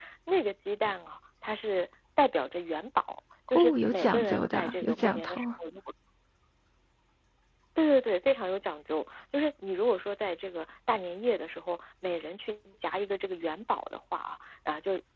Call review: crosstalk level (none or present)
present